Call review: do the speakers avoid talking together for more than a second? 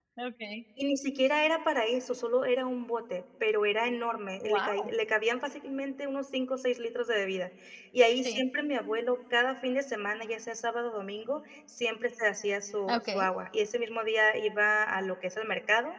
Yes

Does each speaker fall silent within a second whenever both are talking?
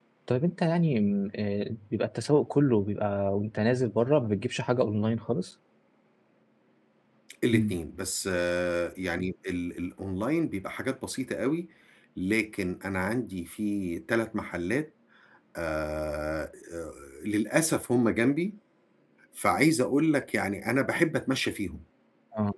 Yes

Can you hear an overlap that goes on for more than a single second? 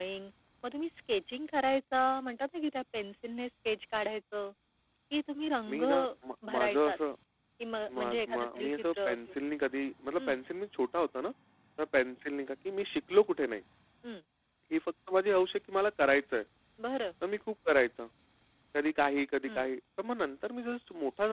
Yes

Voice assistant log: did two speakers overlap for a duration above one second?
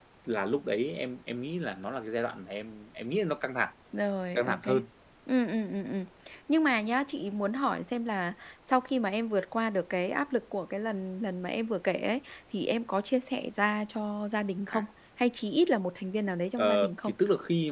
No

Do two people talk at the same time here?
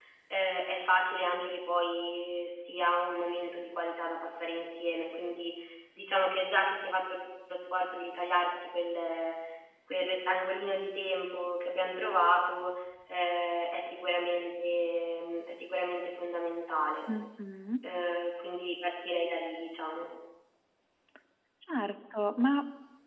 No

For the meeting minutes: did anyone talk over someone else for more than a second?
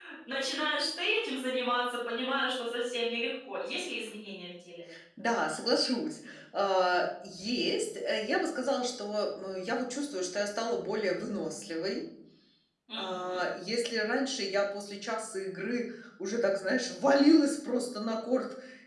No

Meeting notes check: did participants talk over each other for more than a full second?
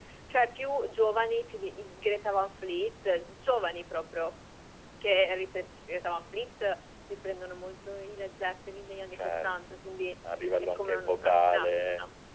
Yes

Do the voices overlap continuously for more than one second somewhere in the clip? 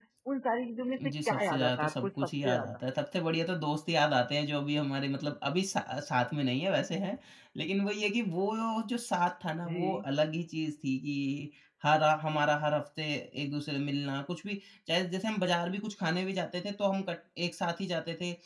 Yes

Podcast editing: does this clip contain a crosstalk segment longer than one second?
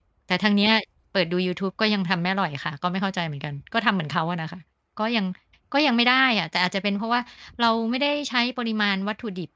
No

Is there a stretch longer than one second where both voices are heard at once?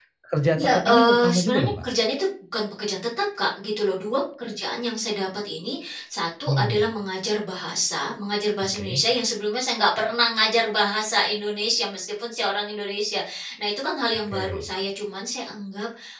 Yes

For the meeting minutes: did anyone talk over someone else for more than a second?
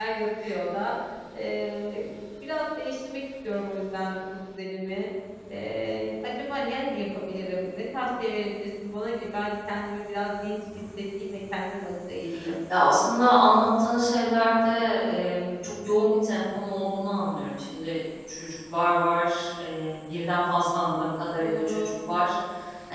No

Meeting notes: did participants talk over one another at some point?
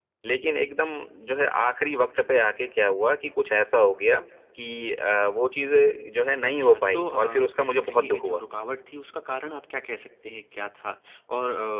Yes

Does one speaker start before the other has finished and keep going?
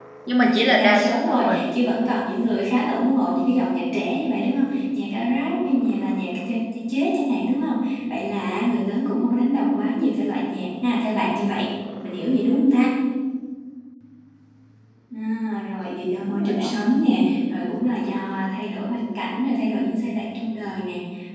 Yes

